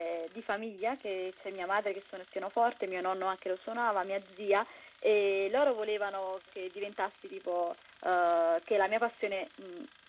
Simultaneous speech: No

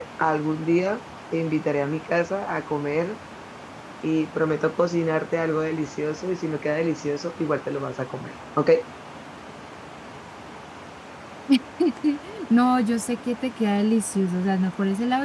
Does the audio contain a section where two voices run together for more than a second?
No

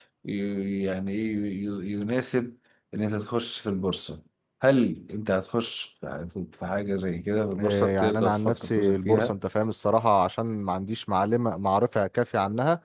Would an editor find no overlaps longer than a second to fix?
No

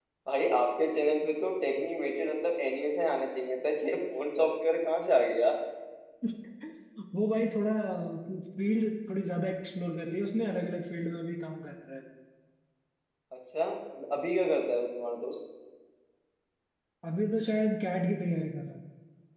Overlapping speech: No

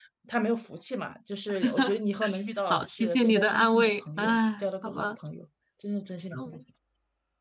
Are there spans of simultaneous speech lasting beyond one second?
Yes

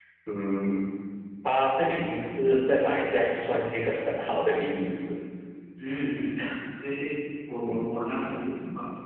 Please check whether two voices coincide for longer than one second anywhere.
No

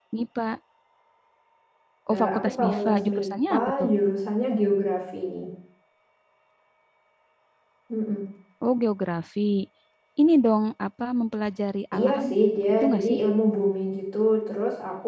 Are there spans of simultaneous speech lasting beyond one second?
Yes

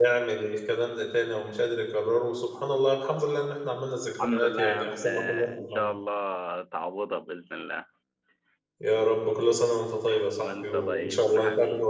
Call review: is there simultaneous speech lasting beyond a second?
Yes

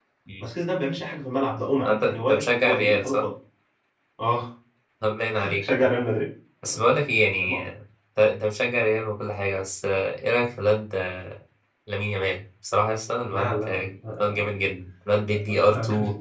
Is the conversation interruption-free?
No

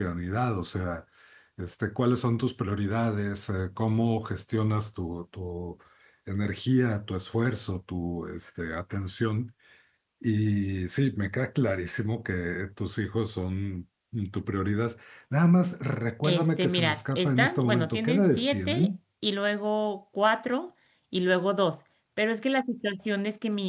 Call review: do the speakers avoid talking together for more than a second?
No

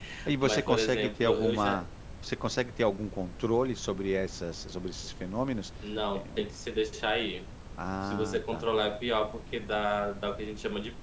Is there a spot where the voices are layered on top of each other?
Yes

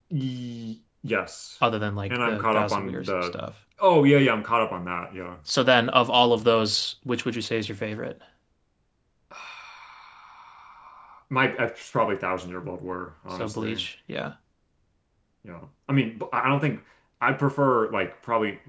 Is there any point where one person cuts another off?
Yes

